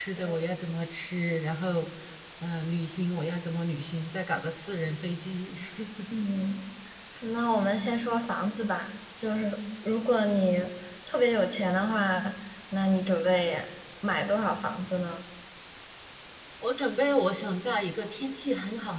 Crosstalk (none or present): none